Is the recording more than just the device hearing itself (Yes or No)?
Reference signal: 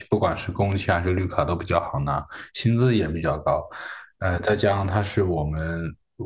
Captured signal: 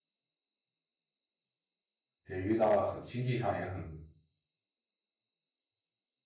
Yes